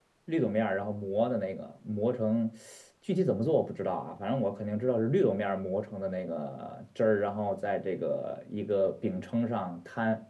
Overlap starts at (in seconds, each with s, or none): none